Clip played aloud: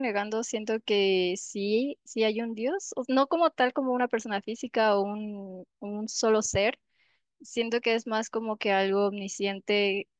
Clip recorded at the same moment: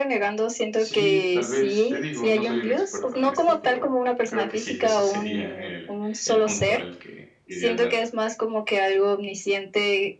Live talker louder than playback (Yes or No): No